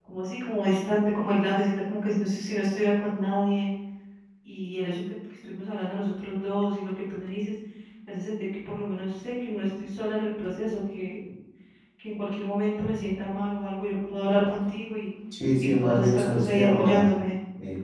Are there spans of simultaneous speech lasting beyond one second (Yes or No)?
Yes